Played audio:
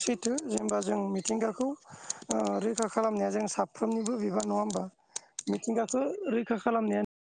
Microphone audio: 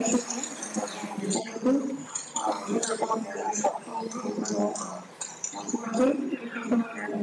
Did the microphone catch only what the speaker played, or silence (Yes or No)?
Yes